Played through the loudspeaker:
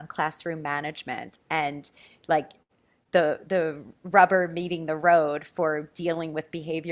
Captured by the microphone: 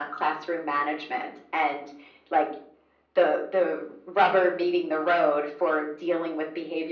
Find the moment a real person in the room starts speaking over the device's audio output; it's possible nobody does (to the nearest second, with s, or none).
none